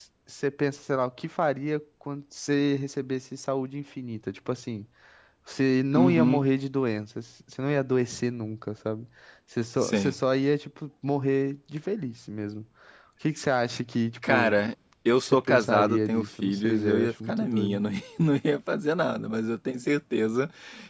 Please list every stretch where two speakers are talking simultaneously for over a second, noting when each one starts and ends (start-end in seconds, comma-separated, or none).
15.1-17.8